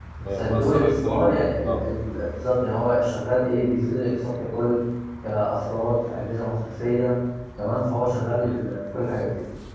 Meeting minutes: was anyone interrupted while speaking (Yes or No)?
Yes